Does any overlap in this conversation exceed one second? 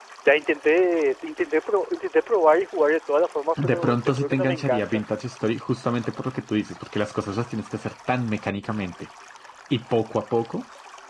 Yes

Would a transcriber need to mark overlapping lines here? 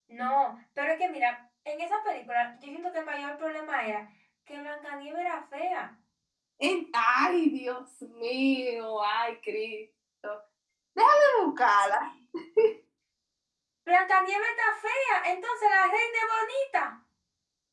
No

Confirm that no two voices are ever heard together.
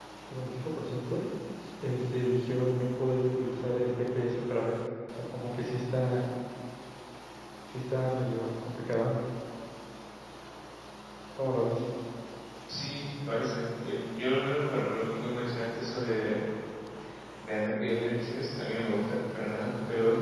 Yes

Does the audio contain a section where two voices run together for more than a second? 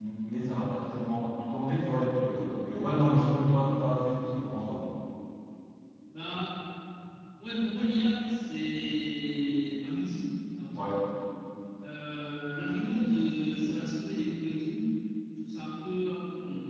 No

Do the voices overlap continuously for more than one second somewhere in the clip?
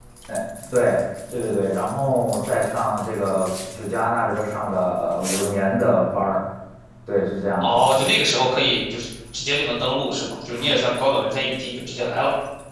No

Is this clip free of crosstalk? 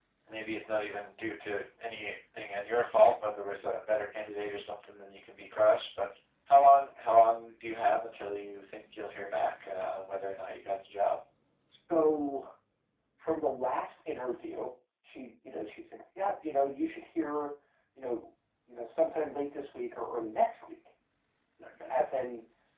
Yes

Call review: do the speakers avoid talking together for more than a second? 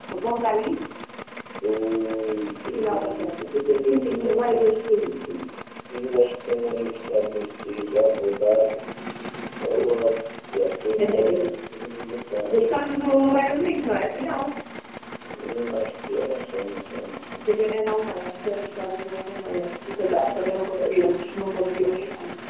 No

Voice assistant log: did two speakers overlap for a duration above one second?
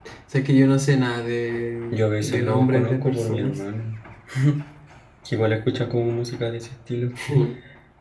Yes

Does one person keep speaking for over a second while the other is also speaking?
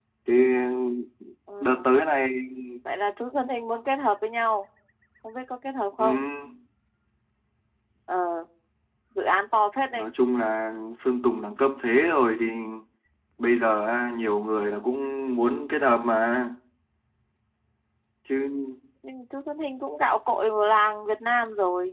No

